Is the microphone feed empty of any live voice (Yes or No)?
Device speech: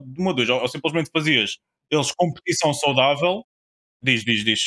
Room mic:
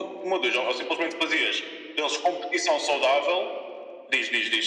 Yes